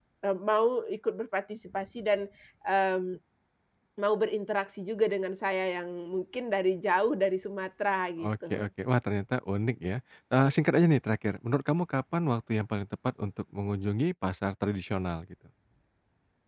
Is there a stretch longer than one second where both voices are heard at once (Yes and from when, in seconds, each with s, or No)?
No